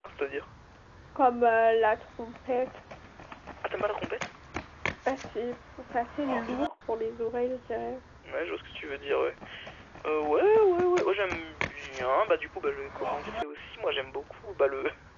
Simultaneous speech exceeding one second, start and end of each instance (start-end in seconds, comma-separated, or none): none